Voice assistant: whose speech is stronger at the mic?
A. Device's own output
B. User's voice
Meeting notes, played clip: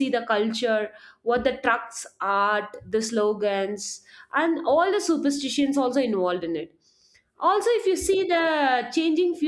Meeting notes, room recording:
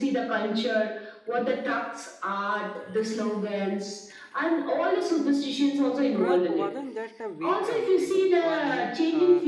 A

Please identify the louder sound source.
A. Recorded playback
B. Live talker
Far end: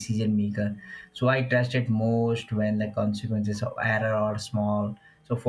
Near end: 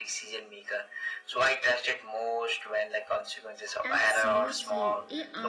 A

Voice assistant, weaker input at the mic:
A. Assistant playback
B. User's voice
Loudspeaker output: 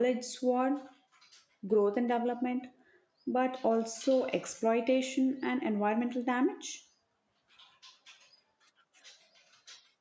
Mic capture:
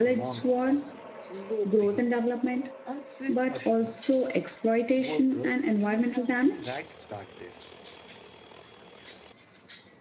B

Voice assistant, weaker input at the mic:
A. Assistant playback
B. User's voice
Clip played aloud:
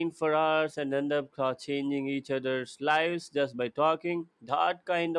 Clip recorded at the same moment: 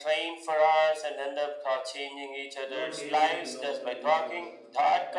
B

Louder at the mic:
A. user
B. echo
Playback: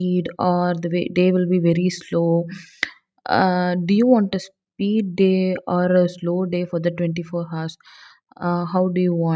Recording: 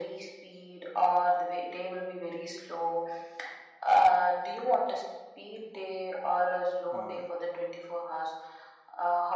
B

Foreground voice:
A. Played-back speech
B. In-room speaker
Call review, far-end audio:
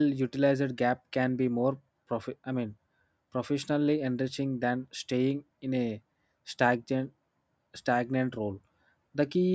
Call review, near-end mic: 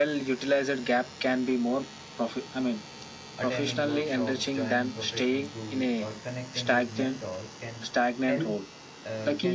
A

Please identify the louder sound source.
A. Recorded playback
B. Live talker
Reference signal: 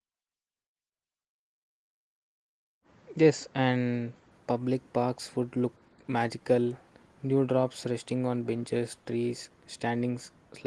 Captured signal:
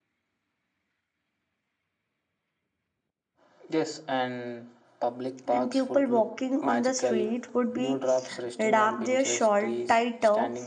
B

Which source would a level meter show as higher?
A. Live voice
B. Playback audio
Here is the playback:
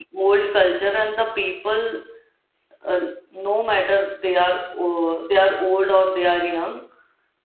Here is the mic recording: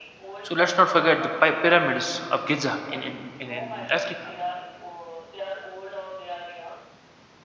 A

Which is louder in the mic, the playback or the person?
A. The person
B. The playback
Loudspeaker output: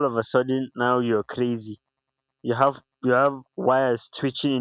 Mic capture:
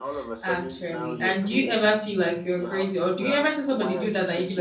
A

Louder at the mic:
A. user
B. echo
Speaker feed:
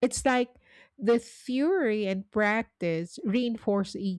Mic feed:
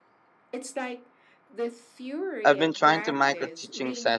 A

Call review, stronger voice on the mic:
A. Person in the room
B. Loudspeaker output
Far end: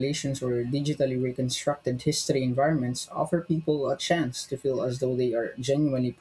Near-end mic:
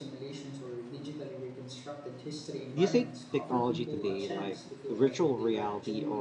A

